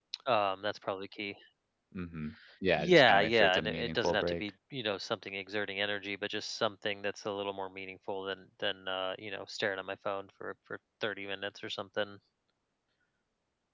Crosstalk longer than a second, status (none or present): present